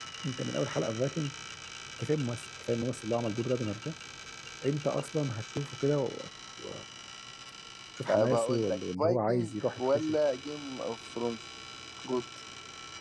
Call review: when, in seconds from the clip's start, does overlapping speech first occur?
8 s

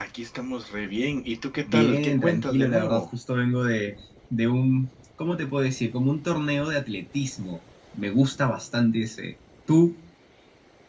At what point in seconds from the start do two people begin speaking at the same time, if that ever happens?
2 s

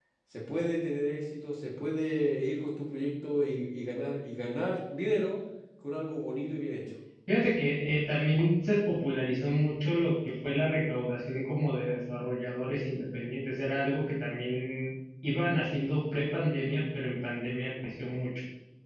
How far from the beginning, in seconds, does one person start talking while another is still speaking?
none

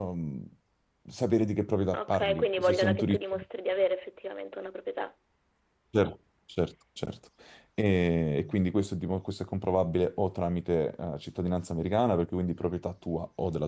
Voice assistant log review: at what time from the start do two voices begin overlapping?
2 s

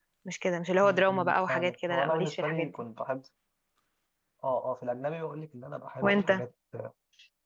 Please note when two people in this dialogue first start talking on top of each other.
1 s

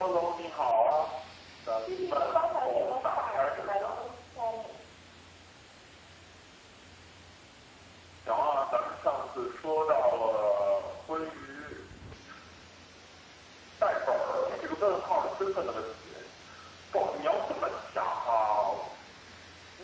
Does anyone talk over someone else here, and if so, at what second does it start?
2 s

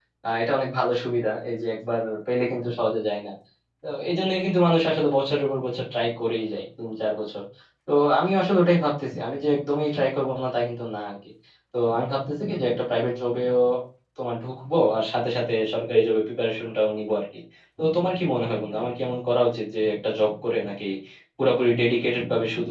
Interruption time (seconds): none

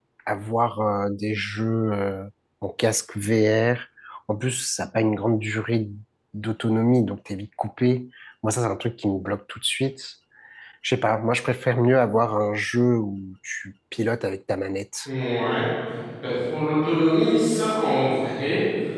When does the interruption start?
none

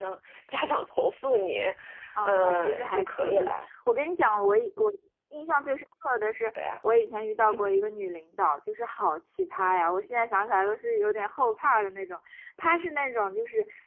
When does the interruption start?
2 s

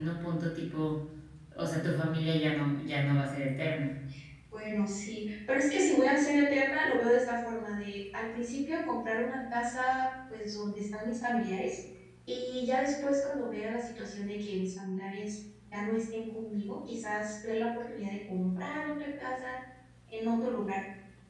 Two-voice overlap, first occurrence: none

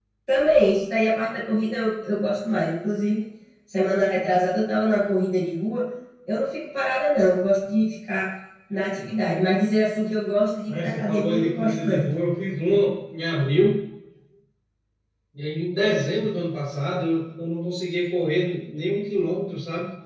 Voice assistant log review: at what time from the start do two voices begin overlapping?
11 s

